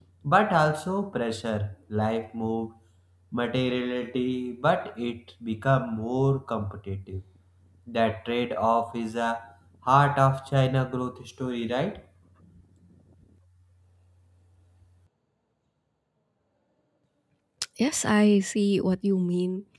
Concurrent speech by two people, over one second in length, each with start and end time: none

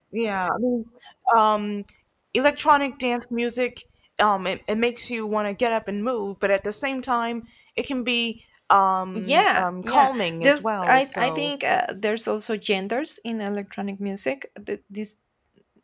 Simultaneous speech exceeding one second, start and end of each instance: 9.1-11.5

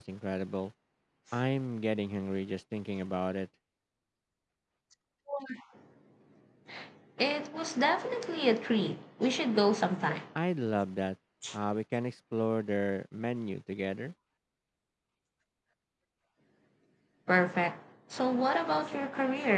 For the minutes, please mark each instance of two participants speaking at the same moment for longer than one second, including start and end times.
none

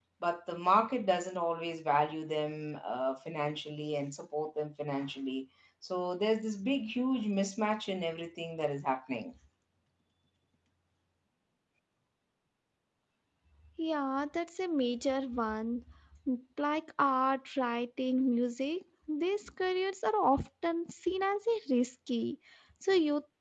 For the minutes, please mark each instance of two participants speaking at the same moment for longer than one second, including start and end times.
none

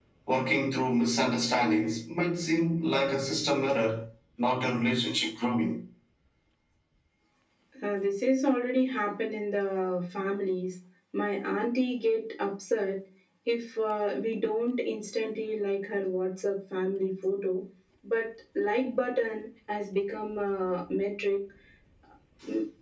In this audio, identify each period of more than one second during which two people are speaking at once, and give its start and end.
none

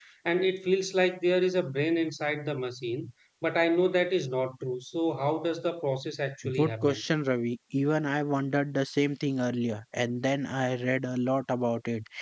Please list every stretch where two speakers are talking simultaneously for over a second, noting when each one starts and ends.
none

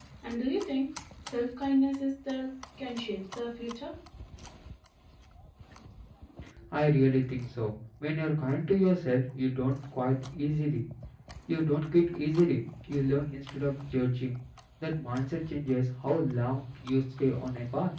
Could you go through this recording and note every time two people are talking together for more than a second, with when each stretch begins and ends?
none

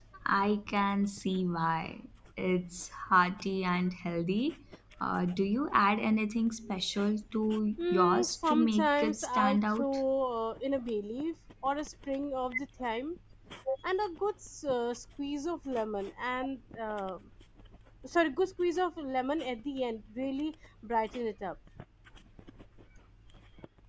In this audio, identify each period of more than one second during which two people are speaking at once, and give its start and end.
7.9-9.8

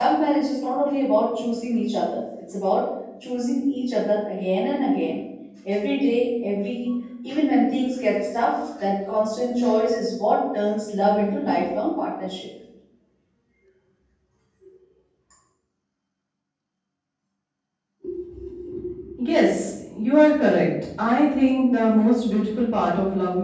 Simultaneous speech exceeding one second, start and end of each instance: none

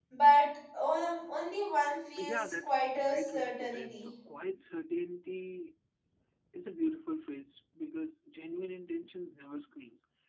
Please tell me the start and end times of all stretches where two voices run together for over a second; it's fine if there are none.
2.2-4.1

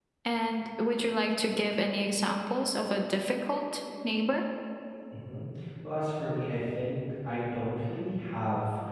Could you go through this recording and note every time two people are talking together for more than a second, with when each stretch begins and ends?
none

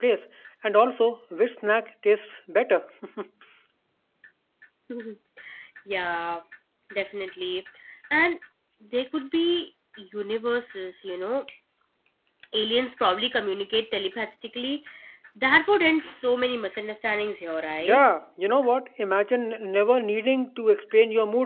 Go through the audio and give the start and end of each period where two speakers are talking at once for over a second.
none

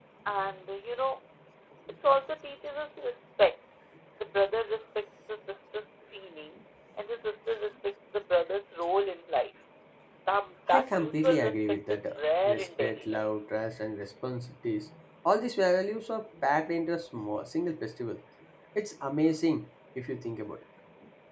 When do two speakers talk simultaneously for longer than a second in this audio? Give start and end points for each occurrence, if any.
10.7-13.3

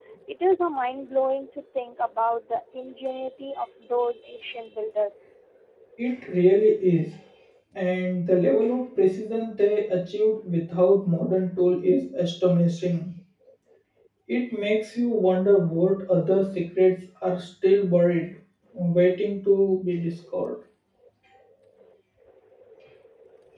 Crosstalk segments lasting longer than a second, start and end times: none

